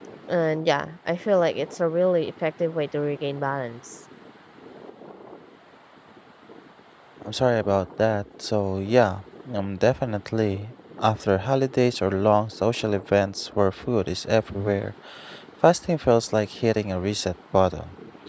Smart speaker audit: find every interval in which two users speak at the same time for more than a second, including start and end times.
none

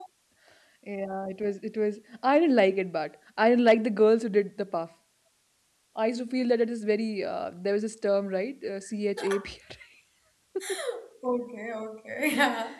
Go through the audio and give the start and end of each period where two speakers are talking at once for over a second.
none

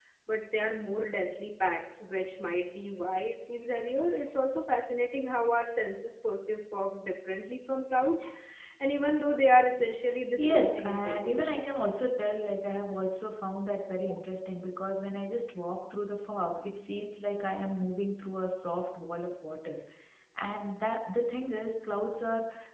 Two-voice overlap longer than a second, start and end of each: 10.4-11.7

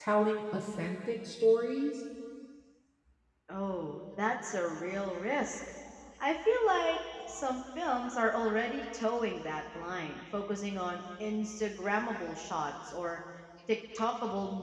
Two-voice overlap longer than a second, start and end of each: none

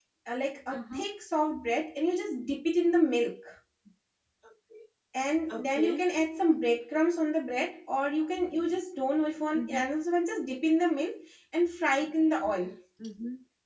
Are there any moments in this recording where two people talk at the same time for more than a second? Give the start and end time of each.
none

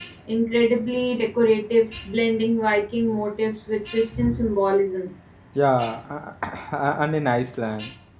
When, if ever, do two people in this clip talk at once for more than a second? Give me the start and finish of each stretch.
none

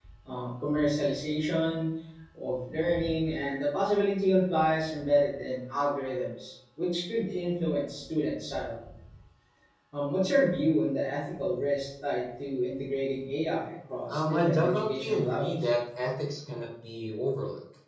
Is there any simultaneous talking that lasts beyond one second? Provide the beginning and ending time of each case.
14.1-15.5

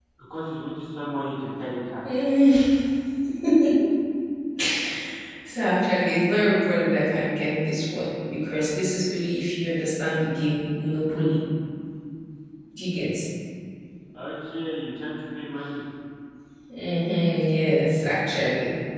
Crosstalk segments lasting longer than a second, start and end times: none

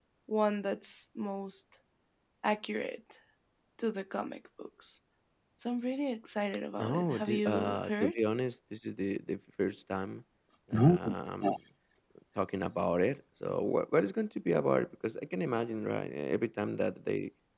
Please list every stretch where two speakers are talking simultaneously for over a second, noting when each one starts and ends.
6.8-8.2

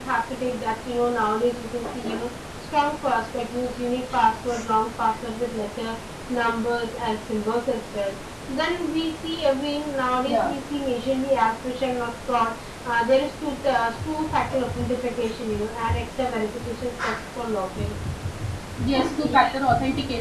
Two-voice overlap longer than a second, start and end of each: none

